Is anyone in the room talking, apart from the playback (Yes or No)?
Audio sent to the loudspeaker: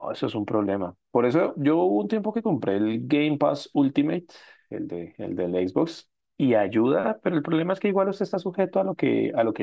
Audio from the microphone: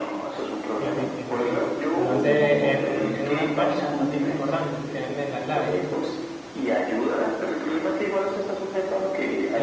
Yes